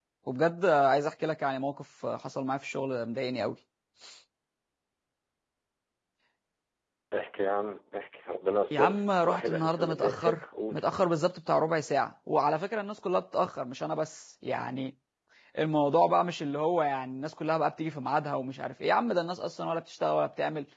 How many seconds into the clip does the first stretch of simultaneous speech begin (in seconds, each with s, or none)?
8.7 s